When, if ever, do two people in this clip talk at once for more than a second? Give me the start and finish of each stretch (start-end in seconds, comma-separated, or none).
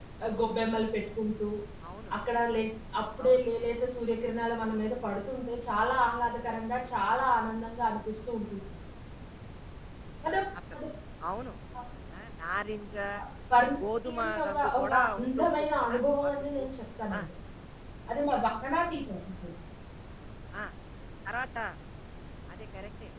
14.0-16.6